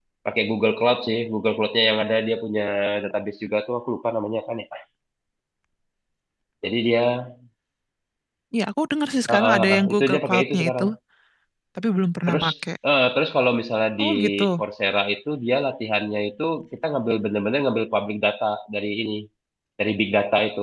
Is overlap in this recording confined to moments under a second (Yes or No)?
No